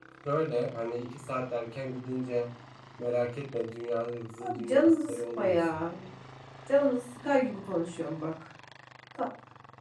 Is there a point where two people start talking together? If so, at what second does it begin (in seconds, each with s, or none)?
4.4 s